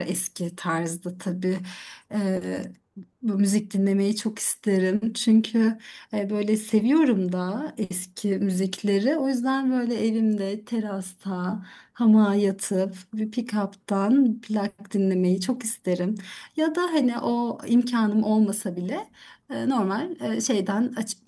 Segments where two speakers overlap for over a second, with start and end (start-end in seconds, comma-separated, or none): none